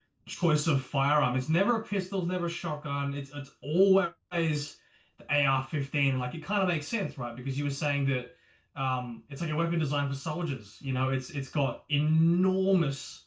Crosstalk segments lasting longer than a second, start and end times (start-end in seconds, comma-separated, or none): none